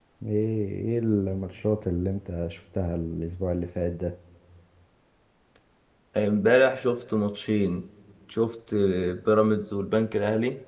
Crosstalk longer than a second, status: none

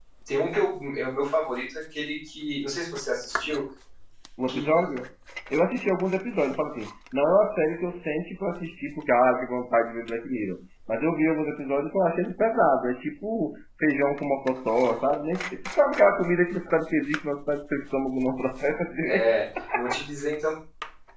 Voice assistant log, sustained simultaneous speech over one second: none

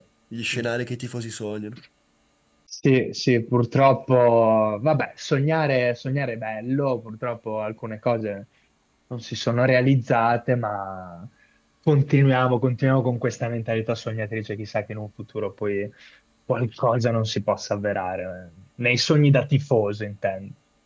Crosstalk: none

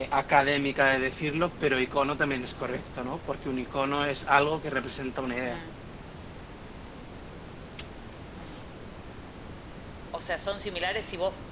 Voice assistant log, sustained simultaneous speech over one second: none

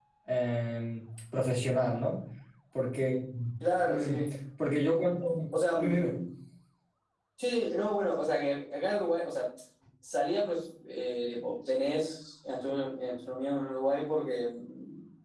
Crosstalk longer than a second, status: none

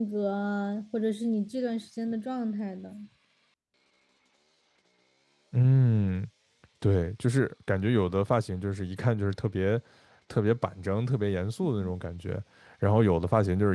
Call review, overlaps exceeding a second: none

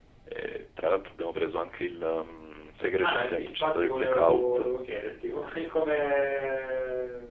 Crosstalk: present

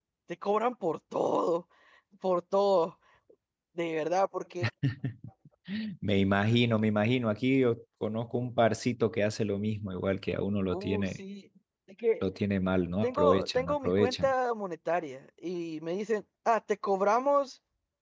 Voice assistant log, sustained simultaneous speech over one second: present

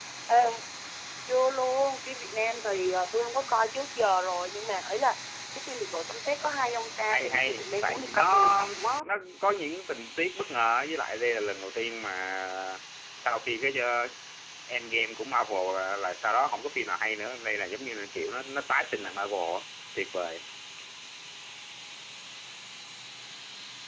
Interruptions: present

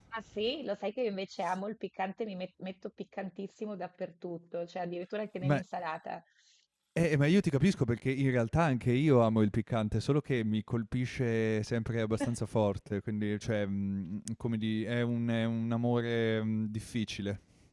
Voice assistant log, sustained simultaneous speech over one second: none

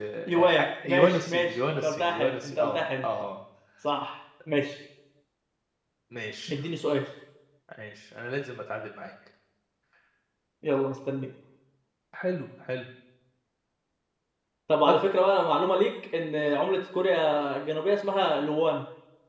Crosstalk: present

